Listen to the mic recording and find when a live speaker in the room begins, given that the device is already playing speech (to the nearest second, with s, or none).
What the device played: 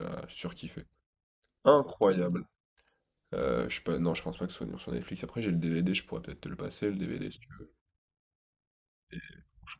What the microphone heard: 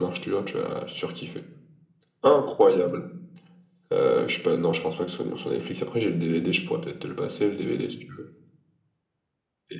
none